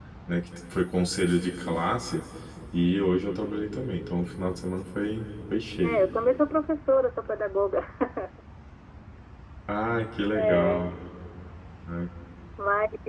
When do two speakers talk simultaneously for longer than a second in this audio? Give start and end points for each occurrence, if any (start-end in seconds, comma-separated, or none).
none